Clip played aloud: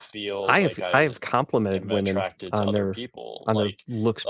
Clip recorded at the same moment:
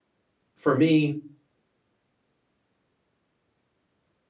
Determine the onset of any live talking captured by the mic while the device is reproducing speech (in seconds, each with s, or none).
0.6 s